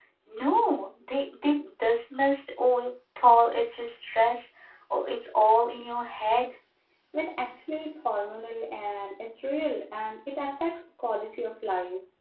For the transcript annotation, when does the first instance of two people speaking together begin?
none

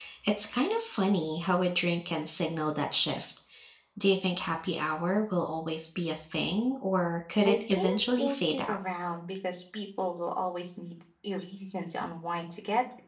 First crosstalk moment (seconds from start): 7 s

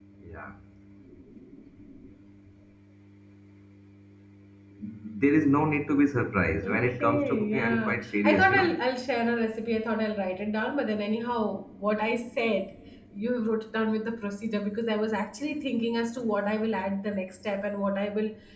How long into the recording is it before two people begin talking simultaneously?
7 s

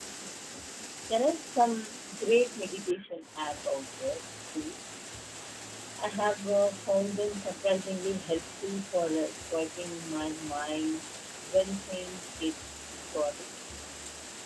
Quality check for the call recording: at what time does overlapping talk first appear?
none

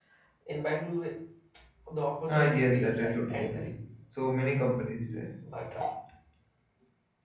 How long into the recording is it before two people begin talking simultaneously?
2 s

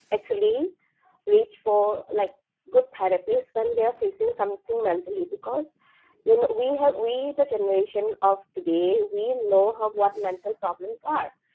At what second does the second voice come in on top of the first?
none

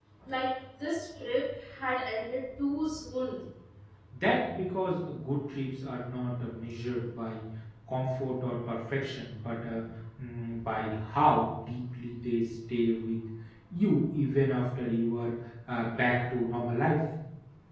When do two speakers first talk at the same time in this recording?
none

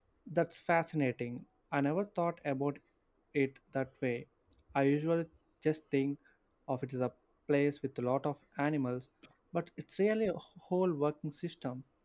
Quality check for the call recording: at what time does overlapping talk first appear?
none

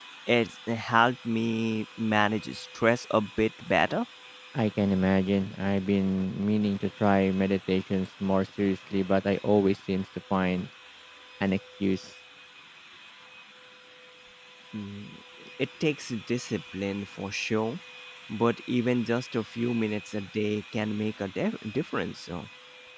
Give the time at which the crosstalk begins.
none

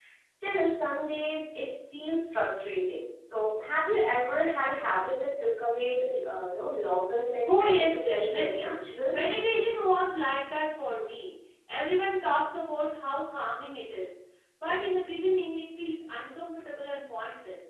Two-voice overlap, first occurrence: 7 s

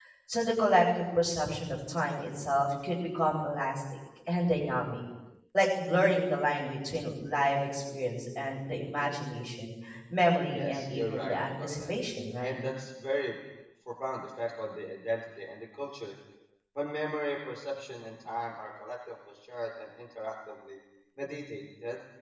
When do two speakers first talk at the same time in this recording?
11 s

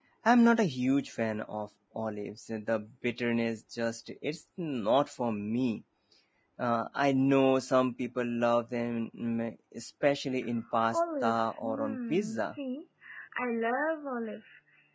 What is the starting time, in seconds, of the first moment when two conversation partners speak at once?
11 s

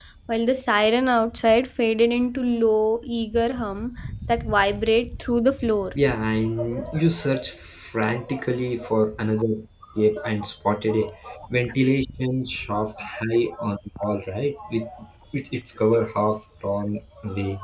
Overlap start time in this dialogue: none

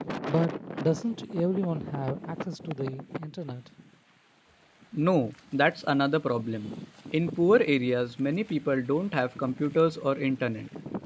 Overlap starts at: none

